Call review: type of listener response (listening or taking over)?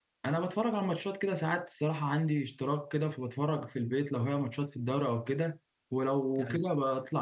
listening